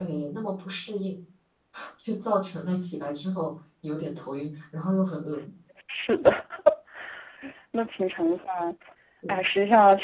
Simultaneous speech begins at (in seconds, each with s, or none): none